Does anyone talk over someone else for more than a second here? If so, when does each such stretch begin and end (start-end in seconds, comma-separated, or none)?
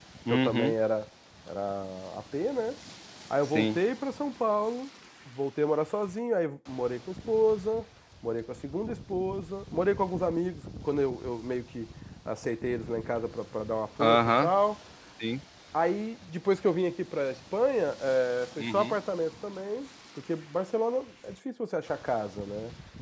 none